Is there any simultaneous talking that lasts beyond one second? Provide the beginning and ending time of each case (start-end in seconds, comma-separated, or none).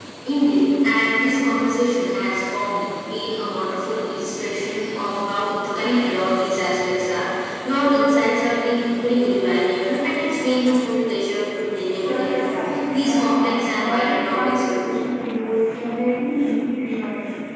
12.1-14.9